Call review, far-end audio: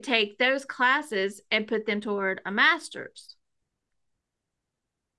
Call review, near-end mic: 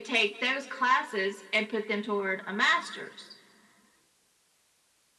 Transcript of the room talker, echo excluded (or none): none